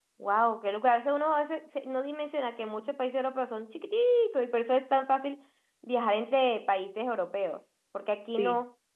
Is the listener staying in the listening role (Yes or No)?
Yes